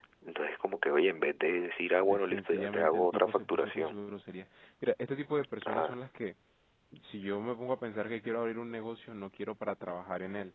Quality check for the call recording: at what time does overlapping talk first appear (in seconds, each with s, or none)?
2.0 s